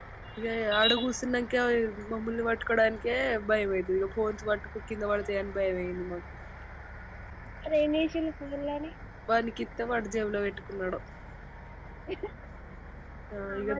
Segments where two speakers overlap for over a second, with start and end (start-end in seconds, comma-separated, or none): none